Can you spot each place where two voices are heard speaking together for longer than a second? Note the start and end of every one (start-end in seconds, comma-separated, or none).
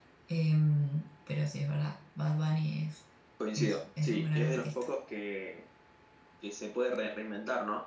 3.6-4.9